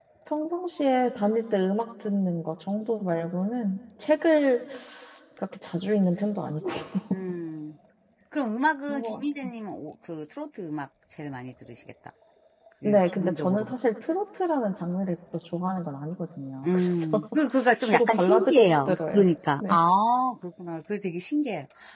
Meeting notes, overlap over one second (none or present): present